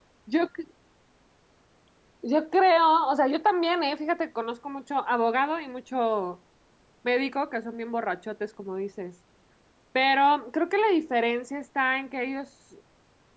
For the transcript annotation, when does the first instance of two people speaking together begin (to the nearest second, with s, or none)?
none